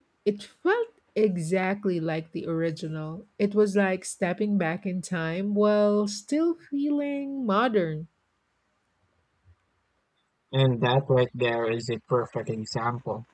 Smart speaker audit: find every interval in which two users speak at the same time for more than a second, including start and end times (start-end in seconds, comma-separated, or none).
none